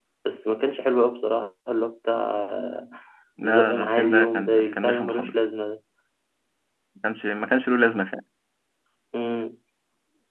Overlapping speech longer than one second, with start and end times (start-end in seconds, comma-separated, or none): 3.5-5.4